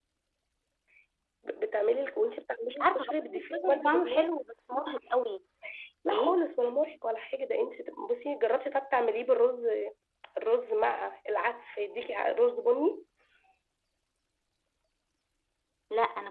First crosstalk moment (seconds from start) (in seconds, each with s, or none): 2.7 s